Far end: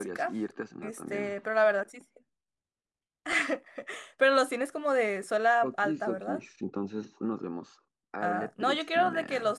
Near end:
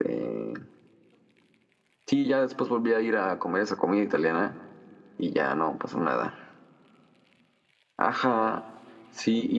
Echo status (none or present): none